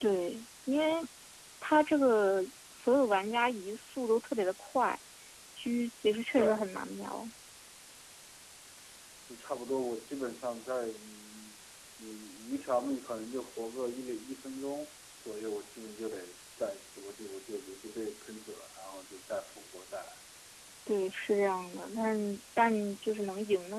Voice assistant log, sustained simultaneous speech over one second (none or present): none